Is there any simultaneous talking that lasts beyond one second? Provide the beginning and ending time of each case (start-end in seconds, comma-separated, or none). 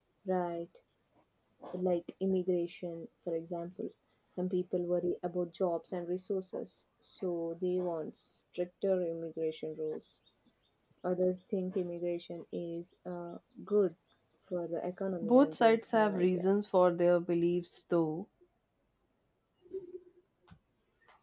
15.2-16.5